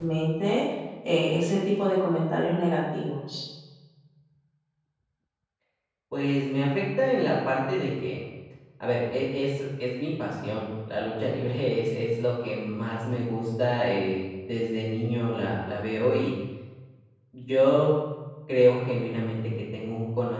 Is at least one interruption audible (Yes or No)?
No